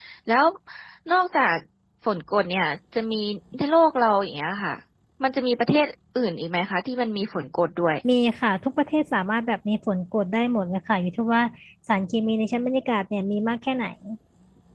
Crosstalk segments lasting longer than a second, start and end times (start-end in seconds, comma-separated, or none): none